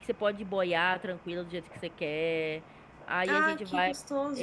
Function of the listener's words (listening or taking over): taking over